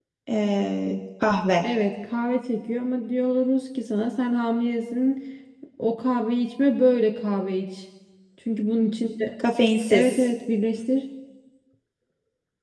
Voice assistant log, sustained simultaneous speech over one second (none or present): none